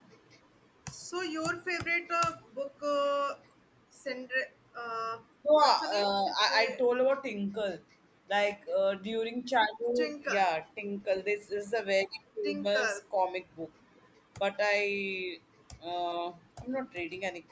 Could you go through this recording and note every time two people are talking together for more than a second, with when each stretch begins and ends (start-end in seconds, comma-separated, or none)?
5.6-6.8